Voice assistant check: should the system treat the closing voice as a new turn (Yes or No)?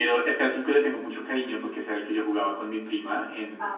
No